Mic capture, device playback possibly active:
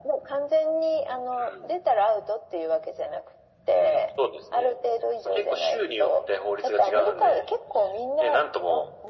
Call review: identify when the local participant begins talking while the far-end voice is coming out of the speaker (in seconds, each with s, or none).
none